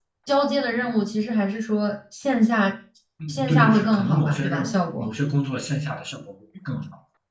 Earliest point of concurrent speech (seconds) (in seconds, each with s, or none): 3.3 s